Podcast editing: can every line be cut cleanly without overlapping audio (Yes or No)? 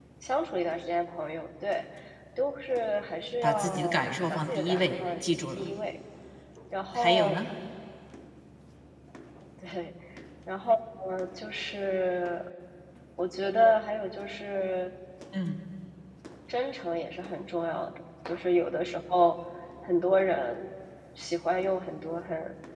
No